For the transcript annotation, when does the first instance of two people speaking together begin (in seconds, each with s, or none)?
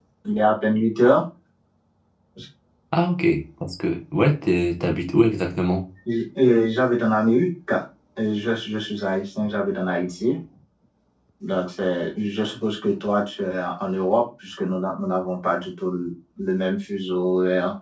none